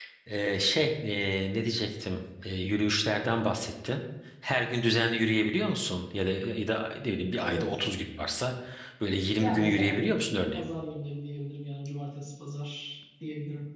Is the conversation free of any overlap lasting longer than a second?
No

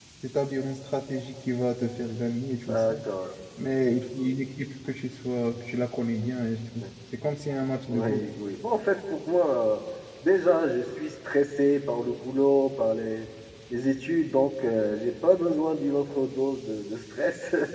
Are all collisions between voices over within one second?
Yes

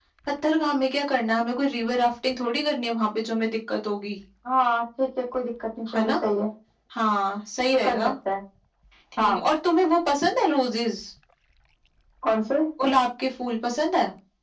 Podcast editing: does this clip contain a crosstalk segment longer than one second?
No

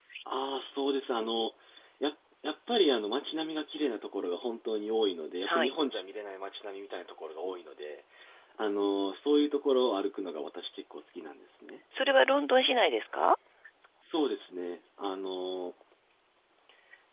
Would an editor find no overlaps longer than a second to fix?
Yes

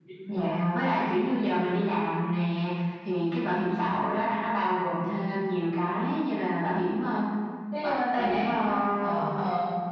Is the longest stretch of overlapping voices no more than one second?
No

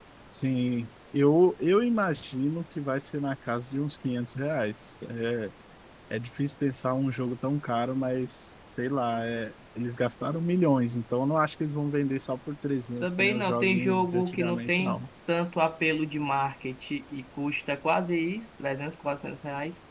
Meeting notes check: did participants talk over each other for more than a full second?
Yes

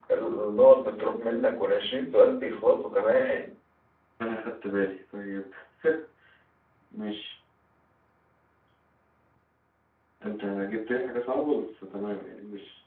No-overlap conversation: Yes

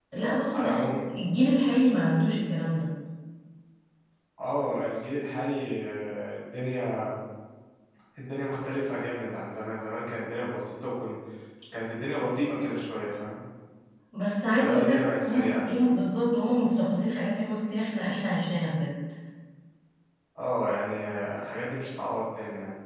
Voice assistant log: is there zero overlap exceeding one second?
No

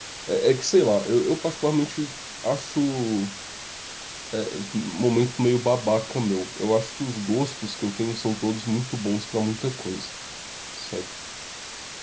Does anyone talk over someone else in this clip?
No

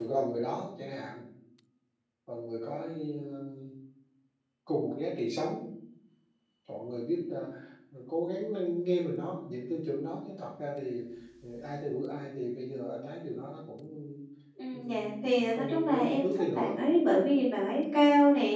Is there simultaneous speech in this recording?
Yes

